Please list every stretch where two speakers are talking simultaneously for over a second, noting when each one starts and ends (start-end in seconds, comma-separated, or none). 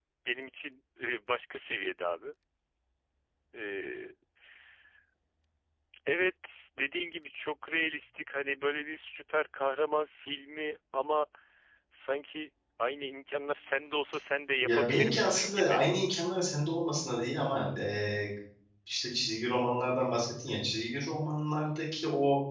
14.6-15.8